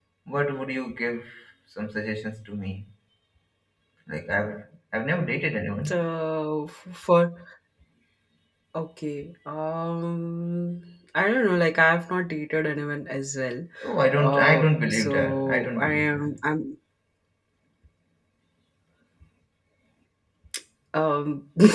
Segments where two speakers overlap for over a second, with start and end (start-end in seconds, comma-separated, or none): 14.2-16.4